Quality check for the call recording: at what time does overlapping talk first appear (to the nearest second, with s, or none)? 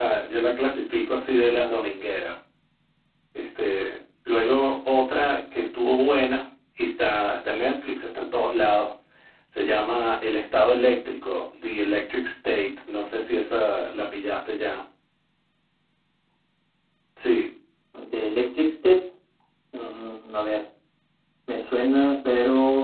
none